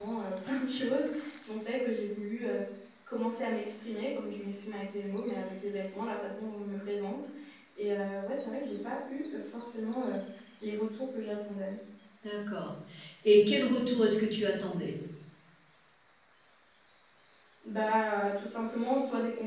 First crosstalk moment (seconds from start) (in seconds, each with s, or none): none